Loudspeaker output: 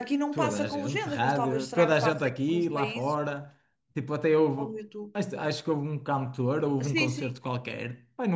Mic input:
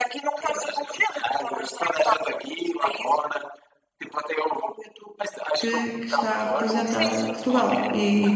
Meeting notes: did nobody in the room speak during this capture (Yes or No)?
No